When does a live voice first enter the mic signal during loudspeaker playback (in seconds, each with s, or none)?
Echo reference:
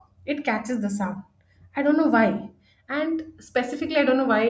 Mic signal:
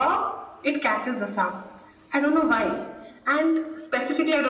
none